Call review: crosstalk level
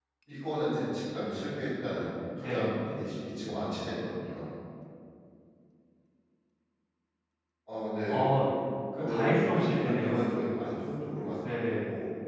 present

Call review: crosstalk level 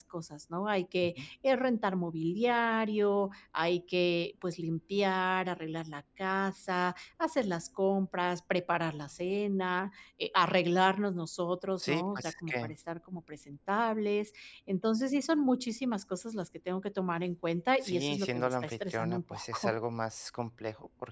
present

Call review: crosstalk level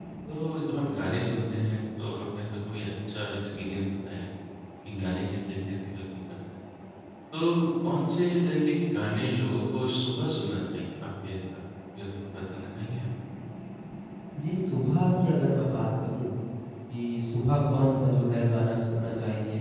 none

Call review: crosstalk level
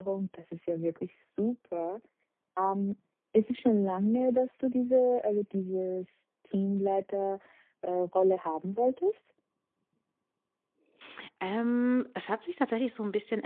none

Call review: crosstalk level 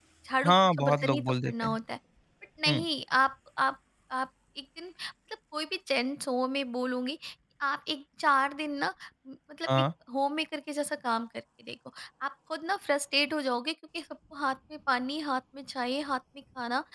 present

